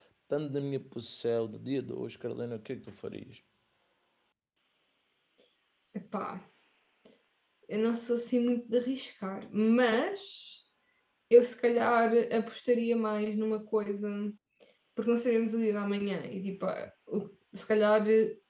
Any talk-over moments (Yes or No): No